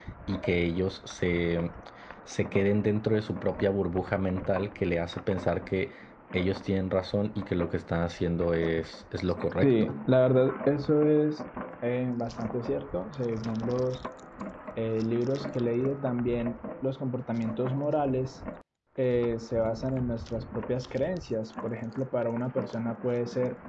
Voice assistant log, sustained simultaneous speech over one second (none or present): none